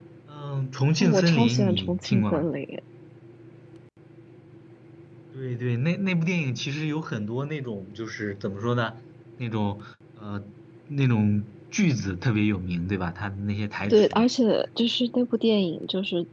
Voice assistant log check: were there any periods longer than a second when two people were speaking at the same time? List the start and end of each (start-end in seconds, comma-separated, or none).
1.0-2.5